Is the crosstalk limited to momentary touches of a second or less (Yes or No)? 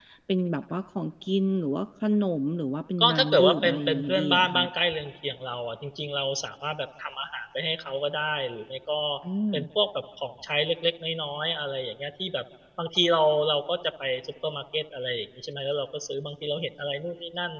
No